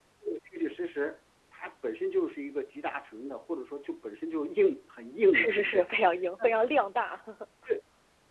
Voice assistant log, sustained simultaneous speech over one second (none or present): none